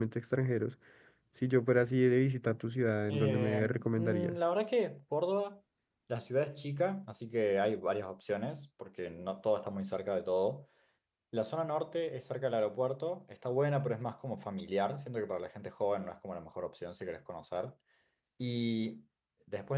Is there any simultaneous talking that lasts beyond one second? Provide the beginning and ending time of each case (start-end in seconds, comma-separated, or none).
3.1-4.4